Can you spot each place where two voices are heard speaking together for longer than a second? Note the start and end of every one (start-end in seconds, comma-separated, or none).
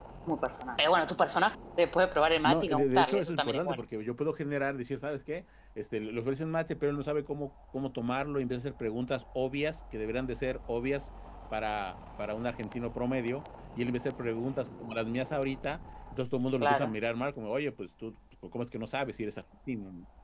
2.4-3.8